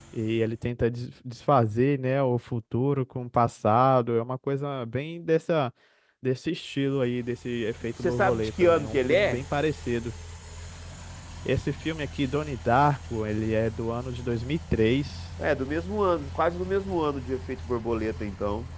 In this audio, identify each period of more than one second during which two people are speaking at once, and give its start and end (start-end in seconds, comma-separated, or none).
8.0-9.4